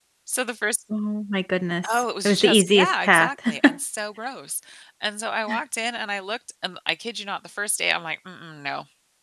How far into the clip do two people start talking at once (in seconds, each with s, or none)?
1.8 s